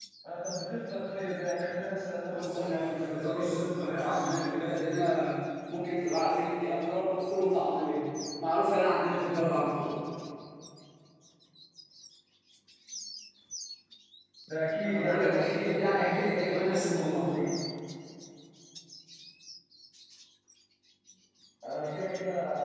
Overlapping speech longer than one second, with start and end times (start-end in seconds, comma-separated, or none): 2.3-4.7, 14.8-17.4